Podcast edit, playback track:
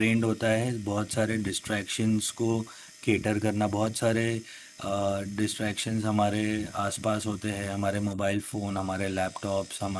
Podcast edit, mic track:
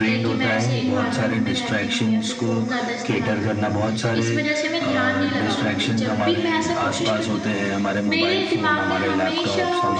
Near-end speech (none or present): present